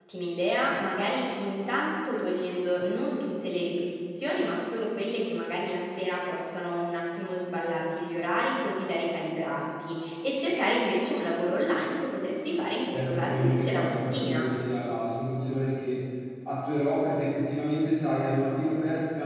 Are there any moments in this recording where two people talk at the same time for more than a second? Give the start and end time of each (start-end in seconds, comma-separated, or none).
12.9-14.4